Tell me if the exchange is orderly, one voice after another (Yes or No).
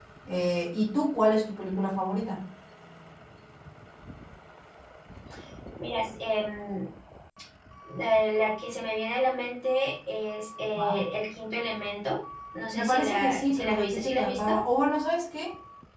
No